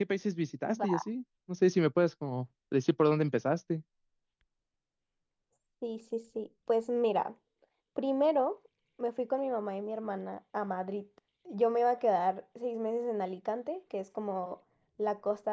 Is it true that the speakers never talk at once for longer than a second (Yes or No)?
Yes